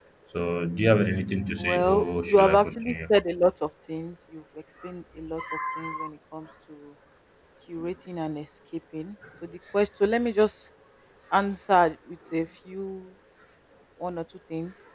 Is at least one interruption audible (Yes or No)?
Yes